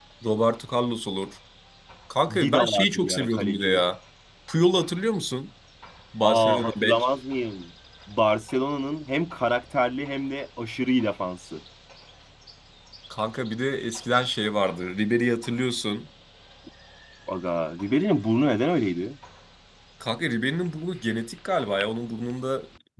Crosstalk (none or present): present